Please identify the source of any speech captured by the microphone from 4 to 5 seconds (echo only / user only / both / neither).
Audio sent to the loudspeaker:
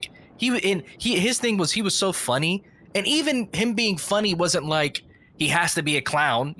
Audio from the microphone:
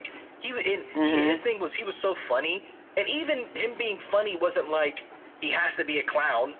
echo only